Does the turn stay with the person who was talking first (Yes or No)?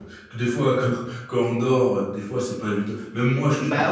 Yes